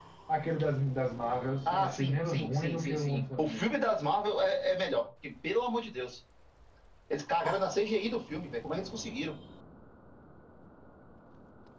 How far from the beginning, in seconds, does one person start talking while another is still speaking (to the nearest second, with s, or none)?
2 s